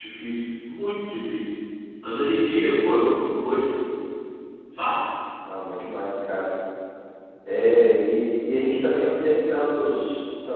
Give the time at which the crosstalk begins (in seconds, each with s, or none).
none